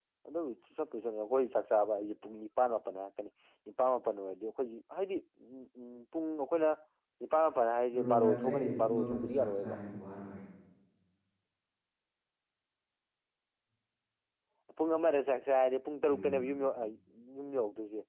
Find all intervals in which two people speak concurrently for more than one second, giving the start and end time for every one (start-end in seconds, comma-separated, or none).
8.0-9.8